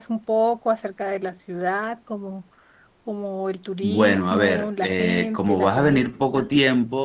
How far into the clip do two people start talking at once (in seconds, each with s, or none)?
3.8 s